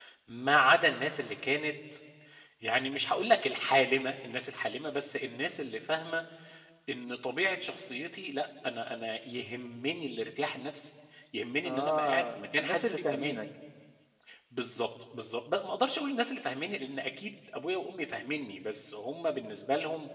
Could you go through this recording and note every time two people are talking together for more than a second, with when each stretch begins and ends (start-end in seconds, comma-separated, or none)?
11.6-13.4